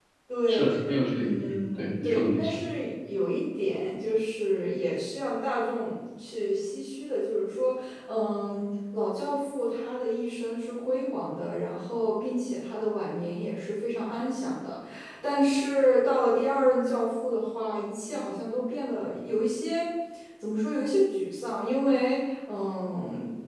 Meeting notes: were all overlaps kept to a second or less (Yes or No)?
No